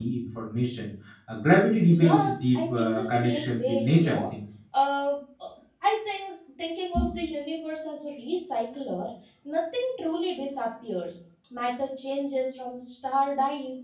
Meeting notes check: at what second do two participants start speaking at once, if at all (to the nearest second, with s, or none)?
2 s